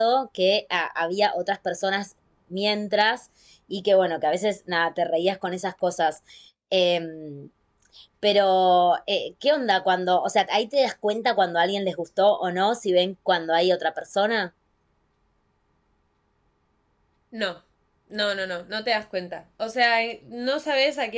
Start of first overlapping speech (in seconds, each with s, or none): none